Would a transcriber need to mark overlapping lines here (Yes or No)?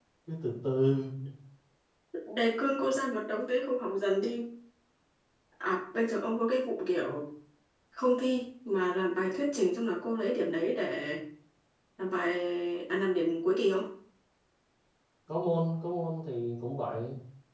No